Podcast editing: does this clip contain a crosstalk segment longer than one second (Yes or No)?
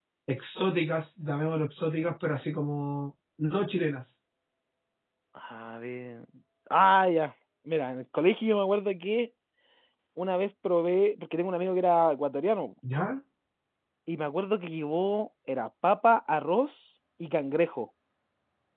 No